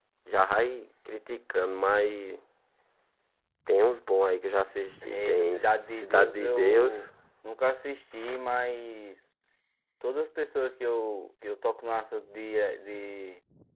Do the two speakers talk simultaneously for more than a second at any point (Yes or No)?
Yes